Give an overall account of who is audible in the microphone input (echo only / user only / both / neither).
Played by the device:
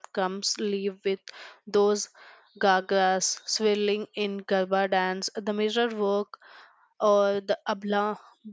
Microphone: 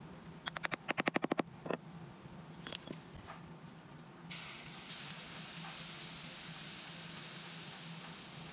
neither